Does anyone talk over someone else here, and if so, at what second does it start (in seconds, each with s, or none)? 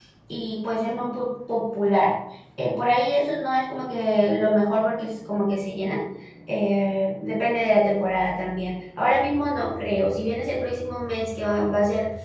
none